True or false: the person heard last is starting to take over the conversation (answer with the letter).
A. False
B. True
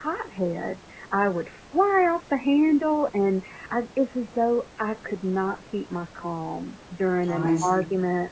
A